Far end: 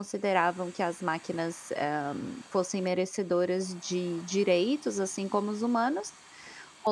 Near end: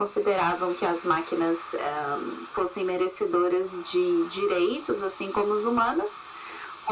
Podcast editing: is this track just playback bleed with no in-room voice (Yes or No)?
Yes